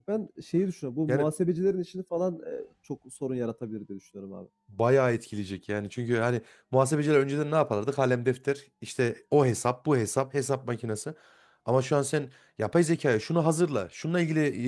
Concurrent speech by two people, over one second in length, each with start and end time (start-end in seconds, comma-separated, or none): none